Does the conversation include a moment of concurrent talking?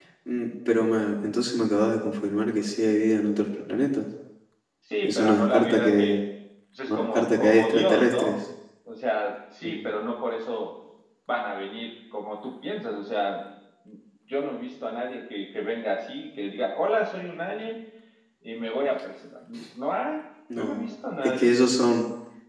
Yes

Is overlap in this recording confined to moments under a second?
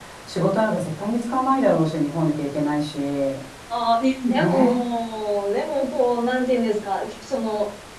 Yes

